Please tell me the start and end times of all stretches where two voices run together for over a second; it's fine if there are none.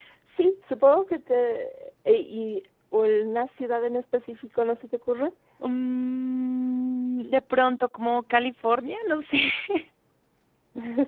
none

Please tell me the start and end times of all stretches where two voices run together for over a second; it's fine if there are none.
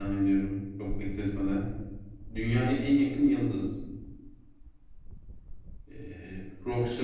none

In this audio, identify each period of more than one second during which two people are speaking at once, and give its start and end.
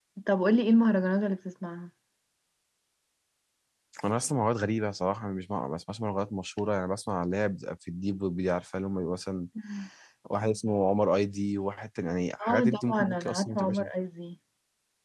12.4-13.8

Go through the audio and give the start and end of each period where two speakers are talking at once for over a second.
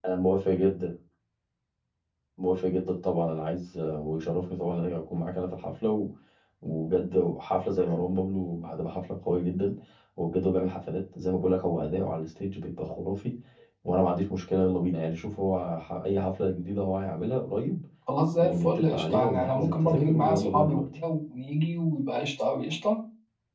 18.4-21.0

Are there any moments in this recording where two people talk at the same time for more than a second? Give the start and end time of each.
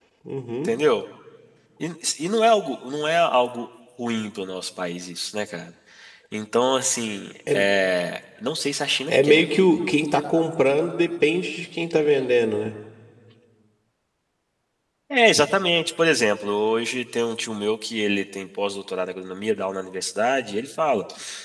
none

